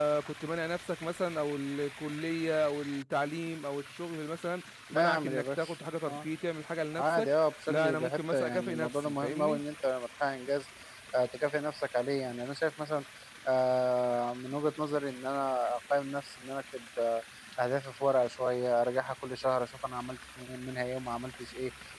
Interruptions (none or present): present